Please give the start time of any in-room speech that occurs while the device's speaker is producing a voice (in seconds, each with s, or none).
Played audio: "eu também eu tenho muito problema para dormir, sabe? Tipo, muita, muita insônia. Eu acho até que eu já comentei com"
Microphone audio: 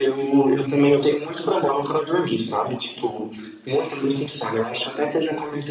none